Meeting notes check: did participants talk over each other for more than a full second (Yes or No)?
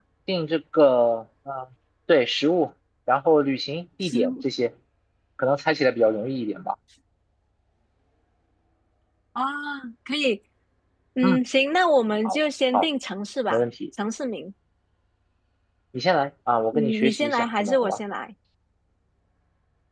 Yes